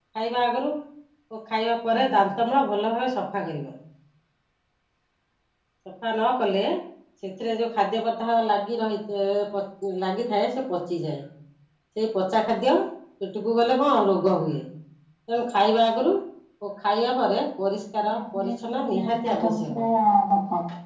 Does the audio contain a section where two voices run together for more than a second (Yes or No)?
Yes